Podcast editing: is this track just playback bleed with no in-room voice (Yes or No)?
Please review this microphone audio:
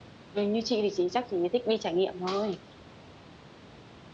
No